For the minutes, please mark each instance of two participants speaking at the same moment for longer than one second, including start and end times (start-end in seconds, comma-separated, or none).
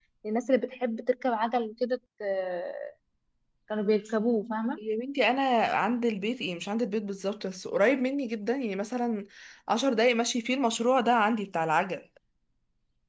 none